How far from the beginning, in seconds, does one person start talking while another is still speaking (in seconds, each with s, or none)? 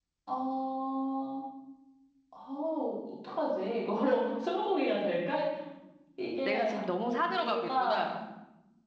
6.5 s